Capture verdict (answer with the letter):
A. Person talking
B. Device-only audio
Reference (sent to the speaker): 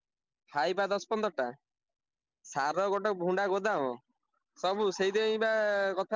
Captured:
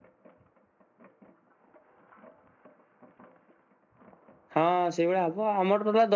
A